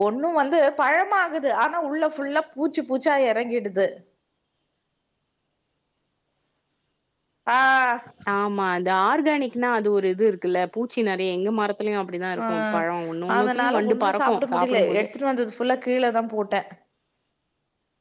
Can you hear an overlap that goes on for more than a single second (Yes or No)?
Yes